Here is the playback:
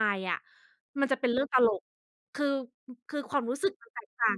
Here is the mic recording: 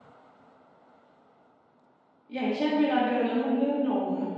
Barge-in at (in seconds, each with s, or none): 2.3 s